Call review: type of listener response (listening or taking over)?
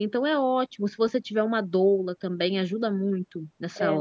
taking over